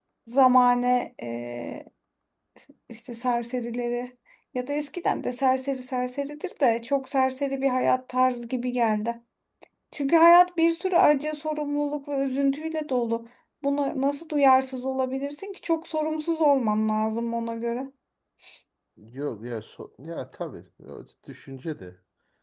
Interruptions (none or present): none